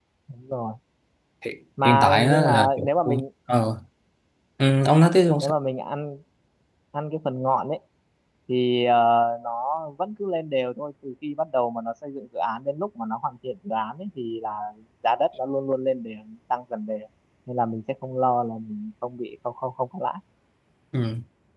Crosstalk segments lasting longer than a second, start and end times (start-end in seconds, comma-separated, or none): 1.8-3.2